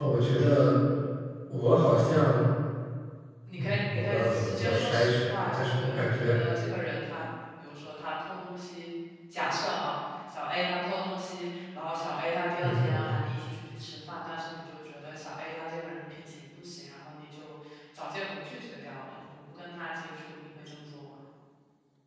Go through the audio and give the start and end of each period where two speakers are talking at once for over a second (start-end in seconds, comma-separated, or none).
3.6-6.4